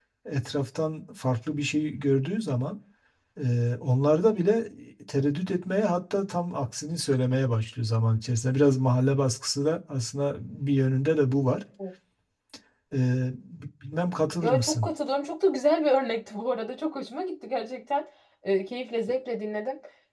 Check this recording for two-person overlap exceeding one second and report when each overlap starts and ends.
none

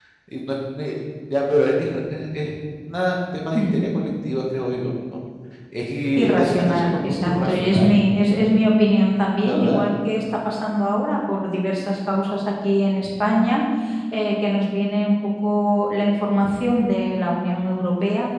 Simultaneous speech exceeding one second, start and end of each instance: 6.2-7.9

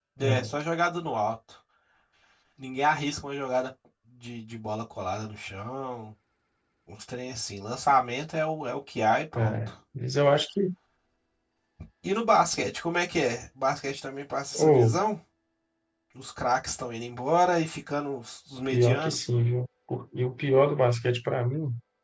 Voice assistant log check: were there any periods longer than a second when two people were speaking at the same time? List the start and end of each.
none

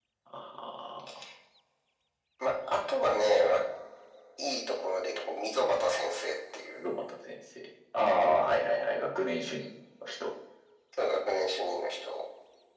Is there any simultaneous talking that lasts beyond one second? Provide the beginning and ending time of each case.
none

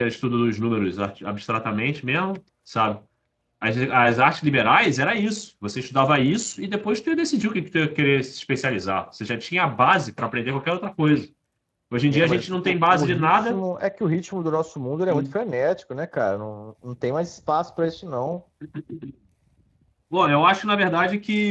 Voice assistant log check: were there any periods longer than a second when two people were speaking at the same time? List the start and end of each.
12.1-13.6

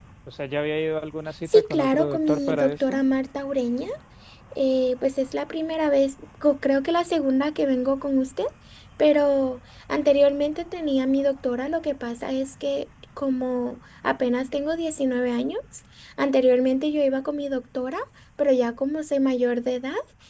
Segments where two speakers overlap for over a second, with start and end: 1.5-3.0

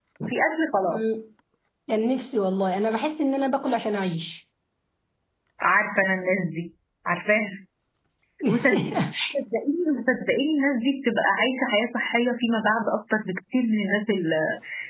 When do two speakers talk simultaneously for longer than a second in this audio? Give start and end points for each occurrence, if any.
none

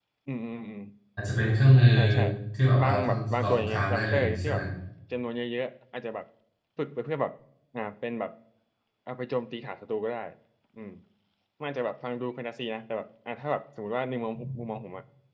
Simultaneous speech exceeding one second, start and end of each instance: 2.8-4.6

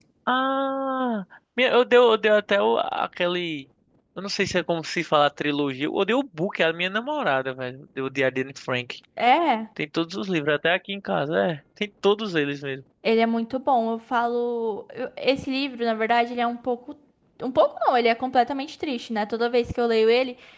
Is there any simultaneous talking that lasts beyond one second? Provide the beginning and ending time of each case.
none

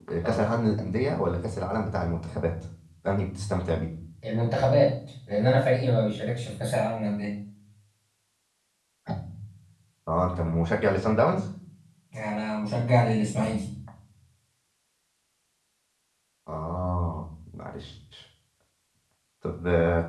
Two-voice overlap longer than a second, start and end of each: none

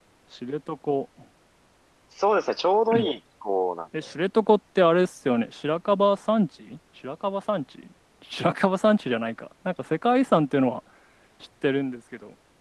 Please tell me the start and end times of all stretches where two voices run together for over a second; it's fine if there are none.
none

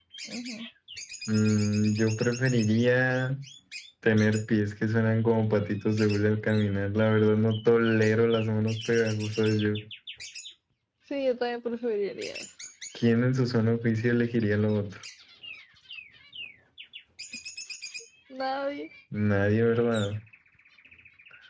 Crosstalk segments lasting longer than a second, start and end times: none

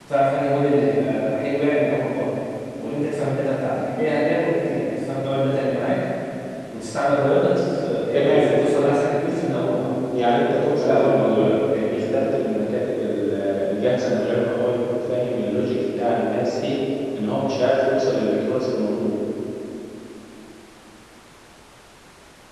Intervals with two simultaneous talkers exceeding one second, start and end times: 10.8-12.0

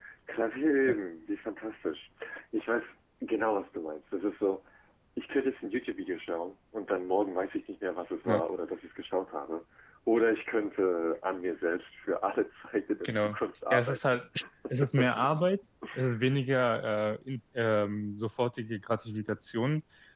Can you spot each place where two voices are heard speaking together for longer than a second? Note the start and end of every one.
none

